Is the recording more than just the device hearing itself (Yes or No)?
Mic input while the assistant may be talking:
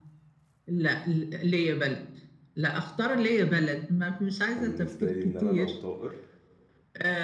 Yes